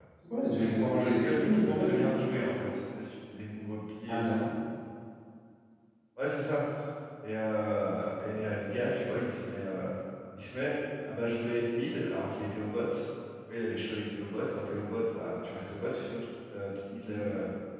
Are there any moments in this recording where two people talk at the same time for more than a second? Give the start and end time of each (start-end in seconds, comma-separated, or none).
0.6-2.1